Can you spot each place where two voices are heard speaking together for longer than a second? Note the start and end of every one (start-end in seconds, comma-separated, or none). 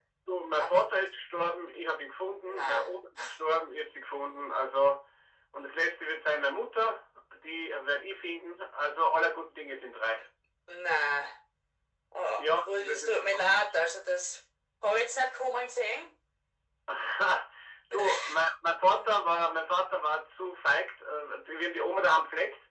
12.3-13.7